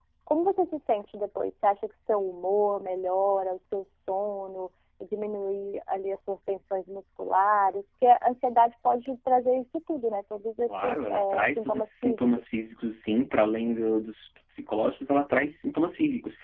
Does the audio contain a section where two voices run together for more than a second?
Yes, from 10.7 s

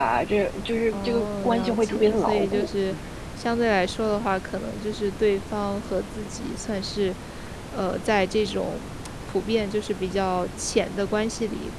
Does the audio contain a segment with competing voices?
Yes, from 0.9 s

